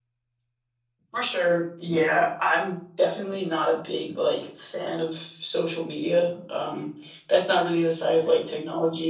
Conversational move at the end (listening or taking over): listening